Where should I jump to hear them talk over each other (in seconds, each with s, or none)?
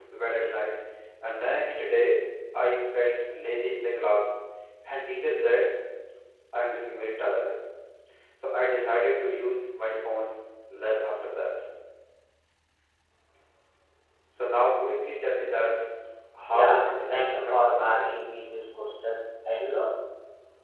16.5 s